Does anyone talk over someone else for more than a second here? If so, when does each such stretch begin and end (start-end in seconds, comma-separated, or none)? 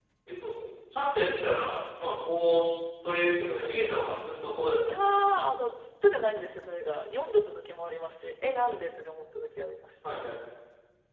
none